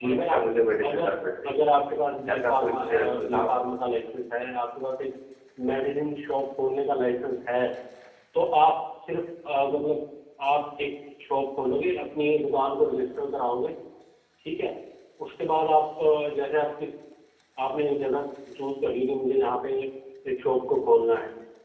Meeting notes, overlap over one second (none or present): present